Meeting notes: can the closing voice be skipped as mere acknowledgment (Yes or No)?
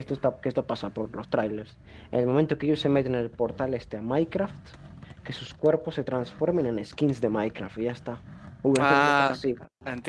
No